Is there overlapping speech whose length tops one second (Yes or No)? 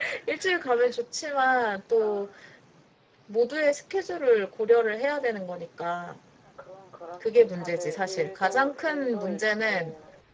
Yes